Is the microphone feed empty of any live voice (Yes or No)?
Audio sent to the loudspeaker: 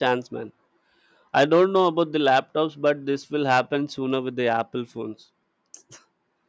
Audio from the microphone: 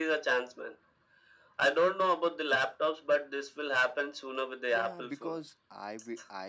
No